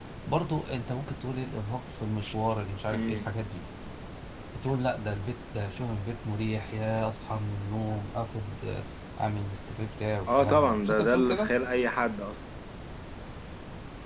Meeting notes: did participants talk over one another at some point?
Yes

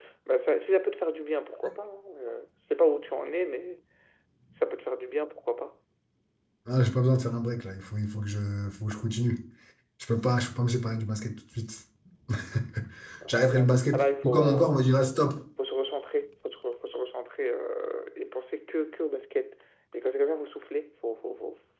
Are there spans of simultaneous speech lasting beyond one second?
Yes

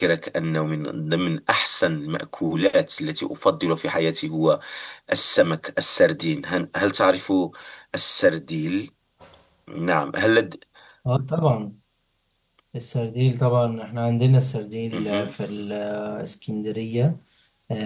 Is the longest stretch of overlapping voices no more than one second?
Yes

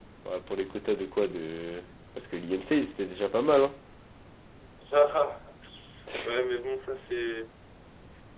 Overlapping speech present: No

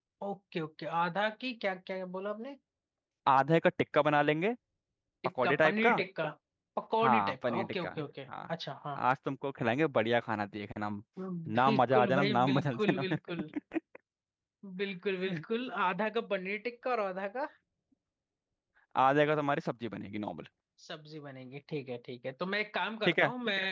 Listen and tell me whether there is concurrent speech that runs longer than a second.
Yes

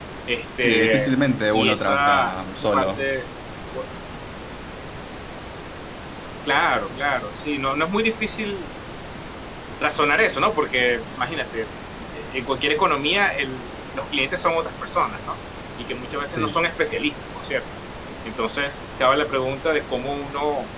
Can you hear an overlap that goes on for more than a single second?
Yes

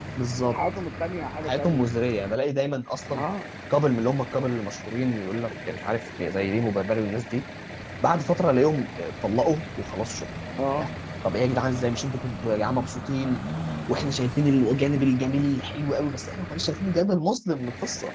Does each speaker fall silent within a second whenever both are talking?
Yes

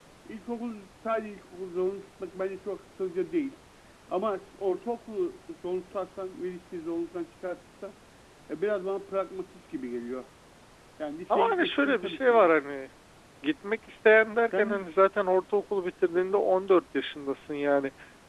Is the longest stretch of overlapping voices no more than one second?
No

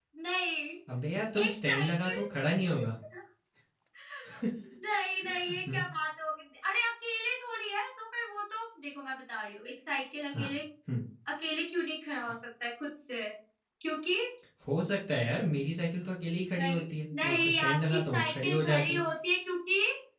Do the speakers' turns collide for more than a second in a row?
Yes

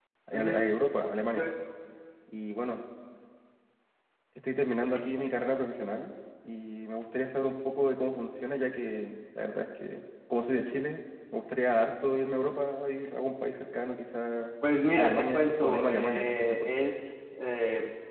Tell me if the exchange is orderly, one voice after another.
No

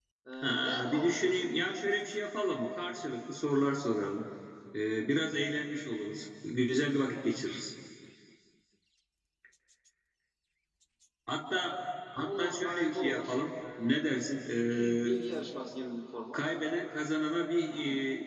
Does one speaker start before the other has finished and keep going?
Yes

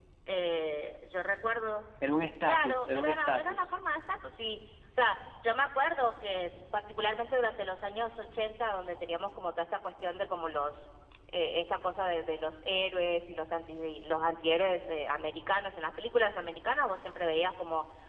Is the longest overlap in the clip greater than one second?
Yes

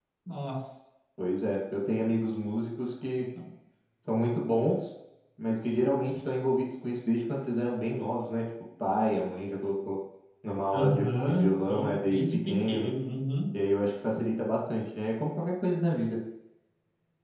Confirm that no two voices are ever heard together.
No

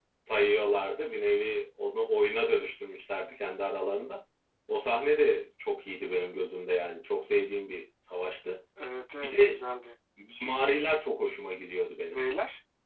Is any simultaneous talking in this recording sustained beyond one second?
No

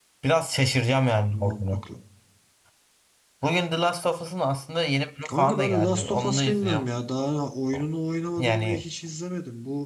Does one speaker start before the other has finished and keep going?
Yes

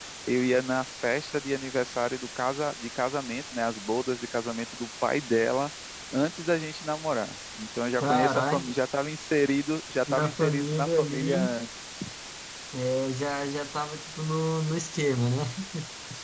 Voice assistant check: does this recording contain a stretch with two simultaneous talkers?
Yes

